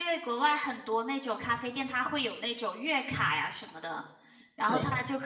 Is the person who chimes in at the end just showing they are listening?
Yes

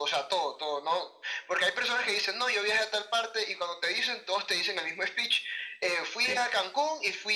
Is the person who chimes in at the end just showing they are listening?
Yes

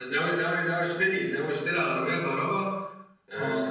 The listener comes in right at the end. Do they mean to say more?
No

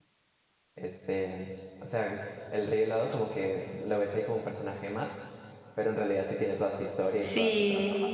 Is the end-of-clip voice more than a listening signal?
Yes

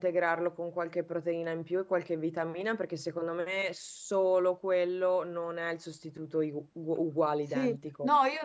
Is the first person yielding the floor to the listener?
Yes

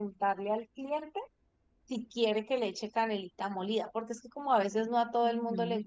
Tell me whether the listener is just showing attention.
No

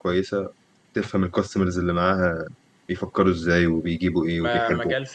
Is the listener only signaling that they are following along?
No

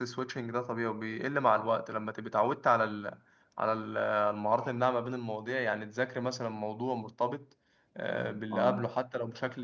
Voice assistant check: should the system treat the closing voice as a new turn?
No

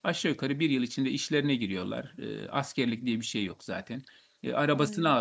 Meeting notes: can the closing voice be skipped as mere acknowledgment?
Yes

